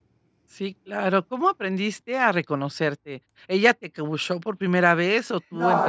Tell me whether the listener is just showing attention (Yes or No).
No